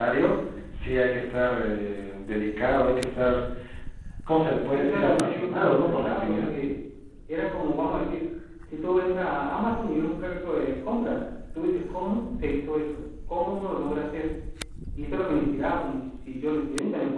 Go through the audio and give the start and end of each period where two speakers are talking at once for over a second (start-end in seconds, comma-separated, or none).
4.7-6.5